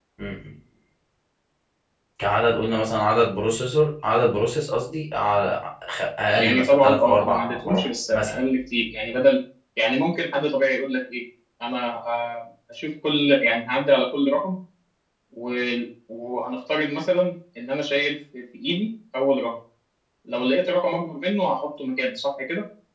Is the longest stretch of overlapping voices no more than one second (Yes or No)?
No